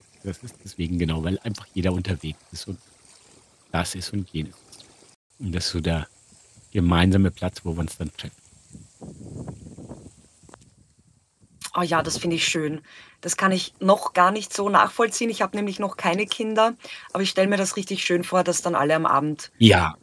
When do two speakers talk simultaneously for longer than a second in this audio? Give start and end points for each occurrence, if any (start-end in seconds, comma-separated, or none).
none